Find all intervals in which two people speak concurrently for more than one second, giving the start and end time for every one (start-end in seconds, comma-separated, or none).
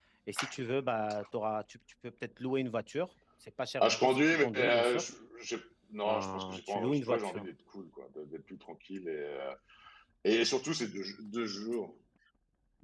3.8-5.1, 6.1-7.5